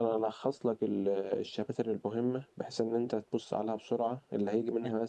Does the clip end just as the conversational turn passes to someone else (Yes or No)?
No